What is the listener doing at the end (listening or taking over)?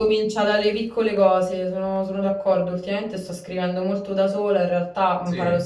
listening